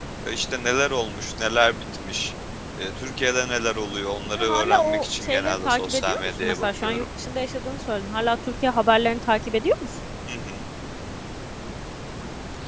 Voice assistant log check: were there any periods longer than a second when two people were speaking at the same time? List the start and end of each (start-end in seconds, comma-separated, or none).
4.4-7.0